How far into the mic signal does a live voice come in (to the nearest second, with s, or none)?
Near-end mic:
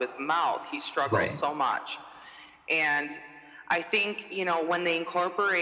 1 s